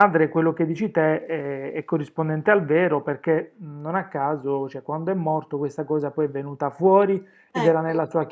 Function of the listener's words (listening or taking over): listening